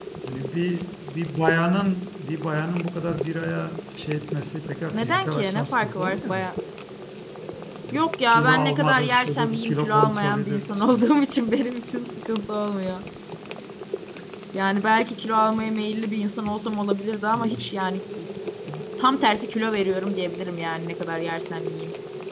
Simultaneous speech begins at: 4.9 s

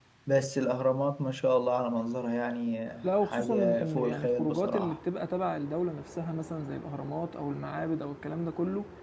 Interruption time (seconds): 3.0 s

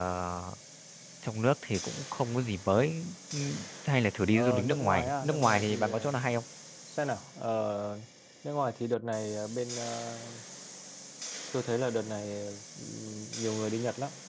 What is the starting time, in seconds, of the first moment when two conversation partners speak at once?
4.3 s

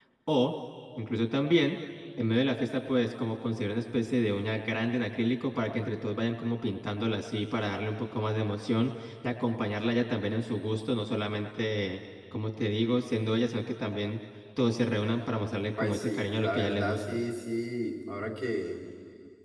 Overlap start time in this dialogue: 15.8 s

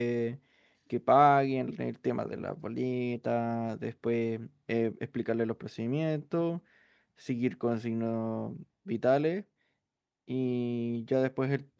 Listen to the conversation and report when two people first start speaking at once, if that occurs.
none

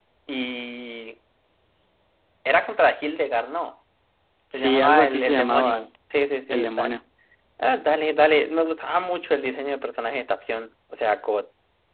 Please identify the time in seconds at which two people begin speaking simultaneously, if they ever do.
4.5 s

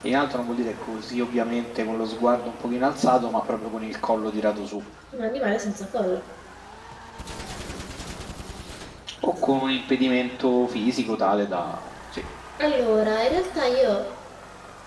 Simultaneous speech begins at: none

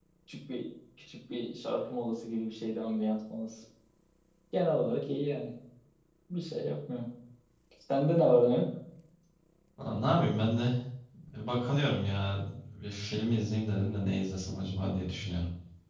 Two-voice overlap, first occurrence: none

